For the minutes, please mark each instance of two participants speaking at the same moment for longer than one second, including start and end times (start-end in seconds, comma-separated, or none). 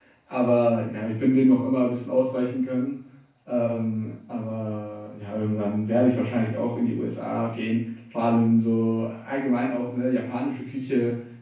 none